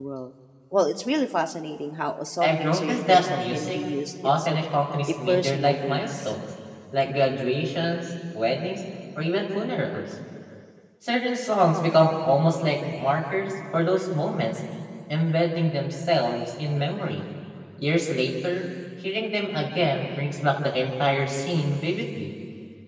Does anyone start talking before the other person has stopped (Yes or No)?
Yes